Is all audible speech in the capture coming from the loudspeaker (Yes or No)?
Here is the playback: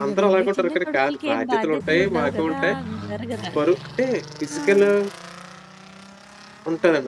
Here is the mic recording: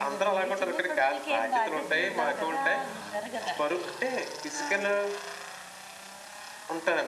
Yes